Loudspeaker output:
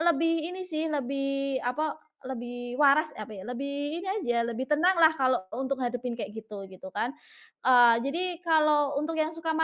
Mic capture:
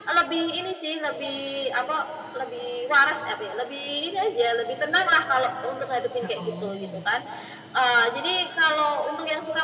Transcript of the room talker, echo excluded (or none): He oh.